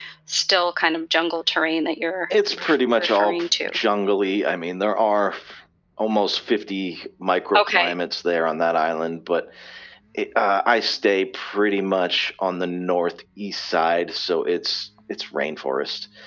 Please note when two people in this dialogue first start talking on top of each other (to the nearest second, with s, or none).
3 s